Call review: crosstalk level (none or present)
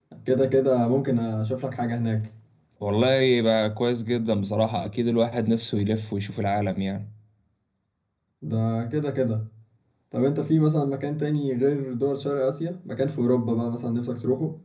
none